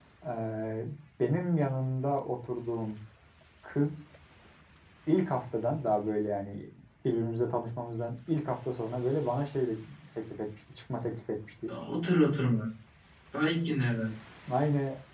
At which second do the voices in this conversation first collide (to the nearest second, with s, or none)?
none